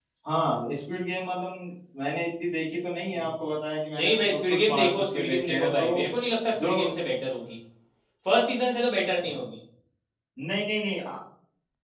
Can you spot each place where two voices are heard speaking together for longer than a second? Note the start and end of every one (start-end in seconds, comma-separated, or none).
4.0-5.9